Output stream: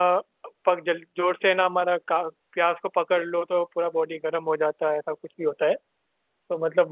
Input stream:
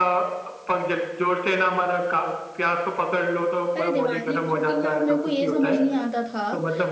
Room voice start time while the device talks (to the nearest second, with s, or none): 4 s